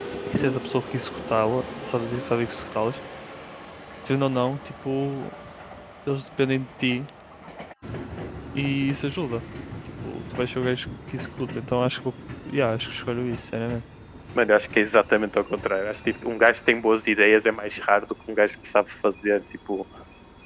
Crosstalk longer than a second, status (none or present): none